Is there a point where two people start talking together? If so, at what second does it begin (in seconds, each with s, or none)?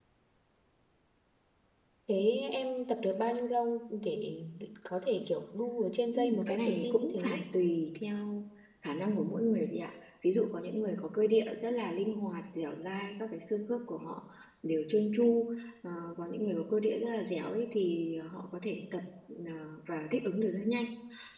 6.1 s